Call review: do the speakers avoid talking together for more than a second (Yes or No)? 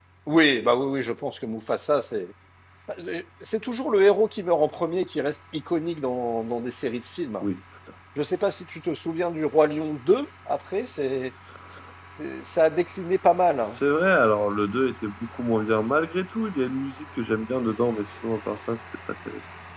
Yes